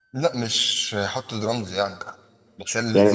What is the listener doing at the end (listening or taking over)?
taking over